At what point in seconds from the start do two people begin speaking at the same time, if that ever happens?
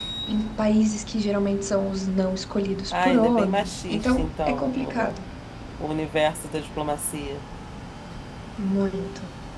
3 s

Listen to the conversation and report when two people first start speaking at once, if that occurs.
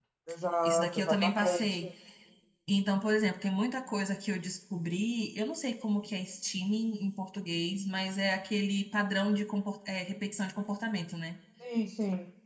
1 s

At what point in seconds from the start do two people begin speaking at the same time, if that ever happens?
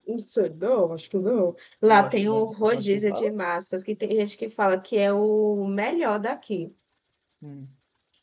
2 s

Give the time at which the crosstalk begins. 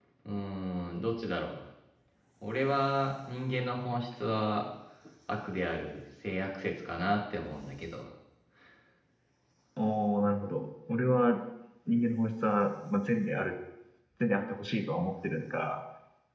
none

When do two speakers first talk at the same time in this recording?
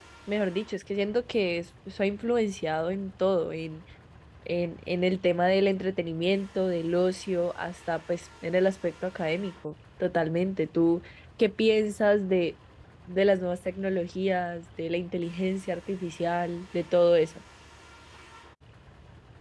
none

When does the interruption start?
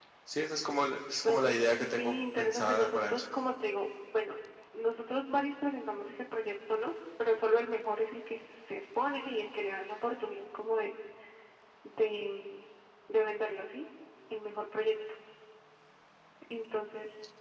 1 s

